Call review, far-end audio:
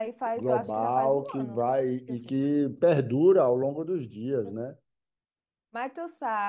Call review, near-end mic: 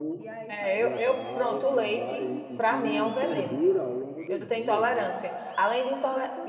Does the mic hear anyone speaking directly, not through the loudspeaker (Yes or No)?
Yes